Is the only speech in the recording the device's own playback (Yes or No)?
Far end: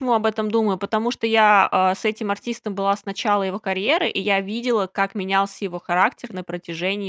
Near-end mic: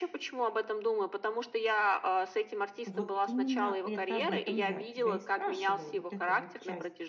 No